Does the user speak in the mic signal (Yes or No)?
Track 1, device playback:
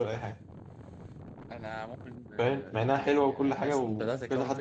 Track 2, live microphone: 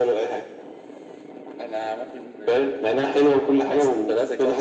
No